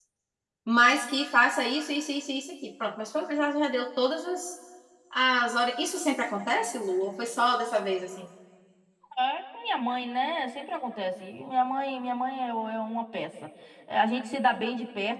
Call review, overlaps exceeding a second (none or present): none